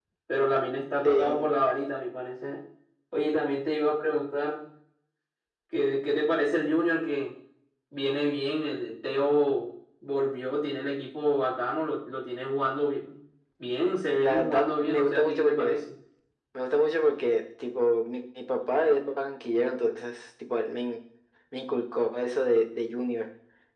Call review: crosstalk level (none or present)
present